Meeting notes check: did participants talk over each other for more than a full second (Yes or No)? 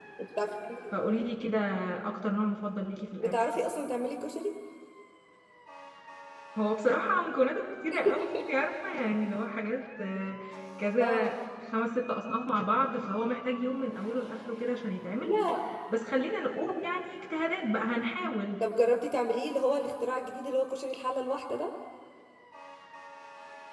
No